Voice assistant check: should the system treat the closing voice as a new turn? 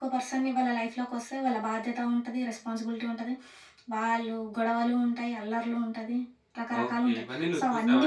Yes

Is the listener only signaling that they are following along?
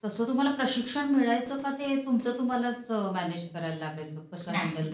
No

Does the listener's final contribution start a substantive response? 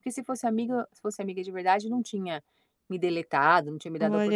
Yes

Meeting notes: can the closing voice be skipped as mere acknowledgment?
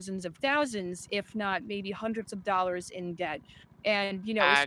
Yes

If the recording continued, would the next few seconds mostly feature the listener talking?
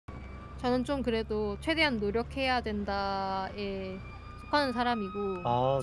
No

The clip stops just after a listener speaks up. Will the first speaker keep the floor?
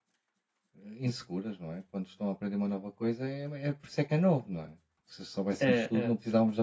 Yes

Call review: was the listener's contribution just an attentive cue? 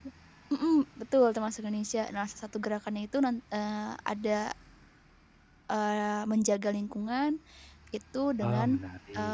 Yes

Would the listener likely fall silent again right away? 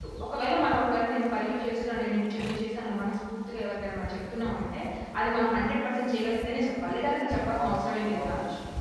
No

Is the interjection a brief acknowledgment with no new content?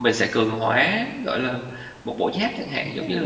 No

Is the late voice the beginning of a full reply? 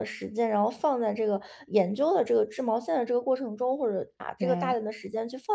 No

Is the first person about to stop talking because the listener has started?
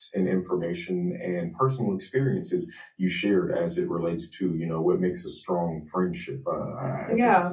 No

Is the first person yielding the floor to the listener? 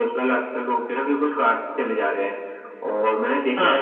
No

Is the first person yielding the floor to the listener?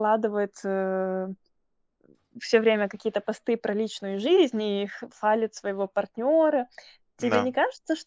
No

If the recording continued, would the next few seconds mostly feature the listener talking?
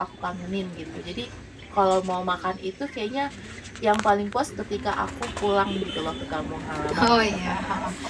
Yes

